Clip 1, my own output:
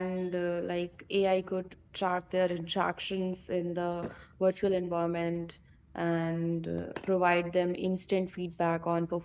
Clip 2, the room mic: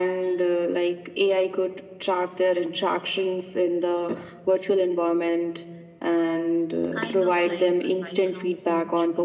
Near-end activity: present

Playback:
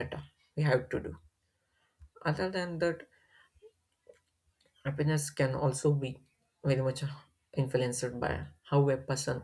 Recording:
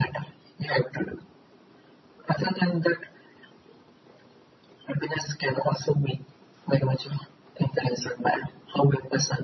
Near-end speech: none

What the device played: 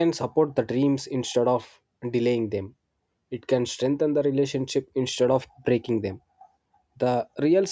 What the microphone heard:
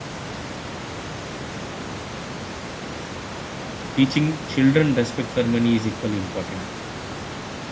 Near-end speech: present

